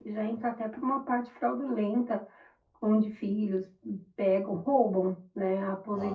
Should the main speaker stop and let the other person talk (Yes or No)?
No